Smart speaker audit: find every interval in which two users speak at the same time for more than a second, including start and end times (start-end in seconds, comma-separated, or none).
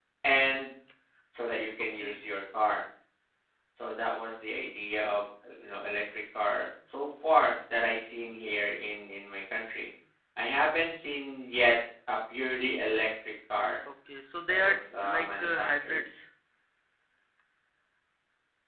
14.5-16.0